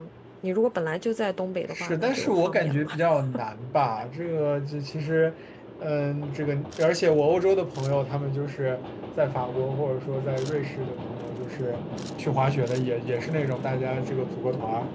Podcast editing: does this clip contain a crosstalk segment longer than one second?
Yes, from 1.7 s

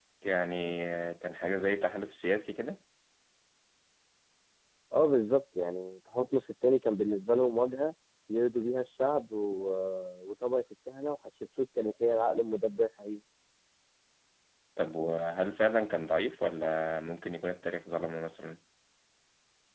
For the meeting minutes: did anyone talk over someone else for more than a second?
No

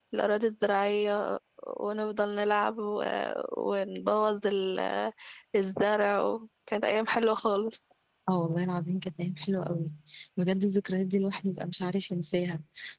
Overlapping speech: No

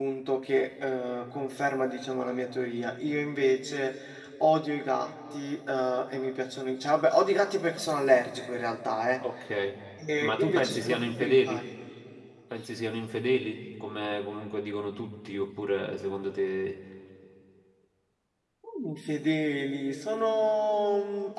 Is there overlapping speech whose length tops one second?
Yes, from 10.2 s

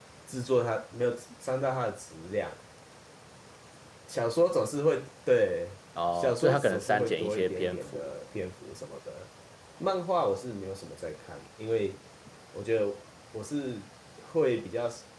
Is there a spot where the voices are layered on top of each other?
Yes, from 6.0 s

